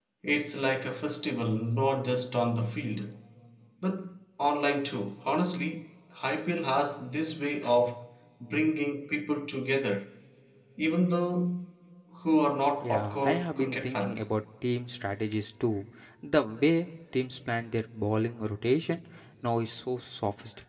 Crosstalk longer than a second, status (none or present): present